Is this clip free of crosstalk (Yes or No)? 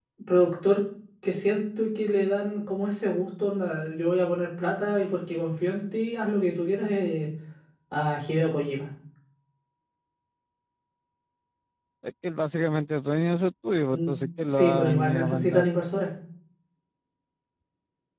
No